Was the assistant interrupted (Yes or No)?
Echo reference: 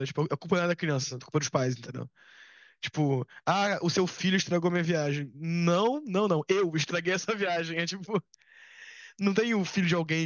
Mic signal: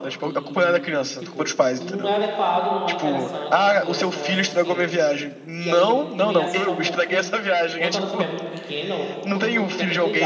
Yes